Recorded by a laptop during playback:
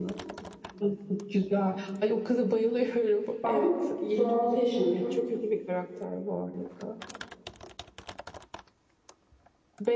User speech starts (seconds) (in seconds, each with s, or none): 3.4 s